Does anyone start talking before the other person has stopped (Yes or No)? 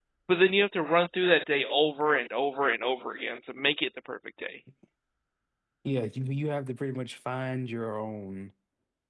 No